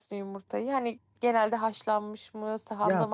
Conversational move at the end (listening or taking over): taking over